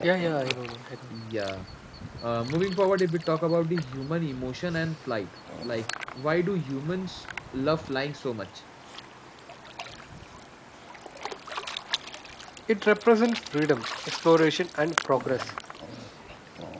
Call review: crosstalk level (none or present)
none